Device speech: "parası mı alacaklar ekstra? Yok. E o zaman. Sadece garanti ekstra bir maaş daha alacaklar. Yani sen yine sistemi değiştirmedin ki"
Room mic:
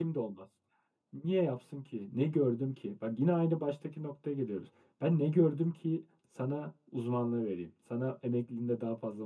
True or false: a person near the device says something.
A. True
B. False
A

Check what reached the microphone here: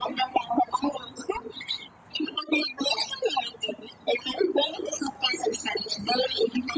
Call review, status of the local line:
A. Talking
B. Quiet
B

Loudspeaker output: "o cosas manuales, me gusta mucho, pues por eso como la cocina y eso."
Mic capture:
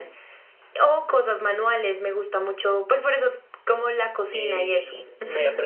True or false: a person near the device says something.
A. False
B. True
B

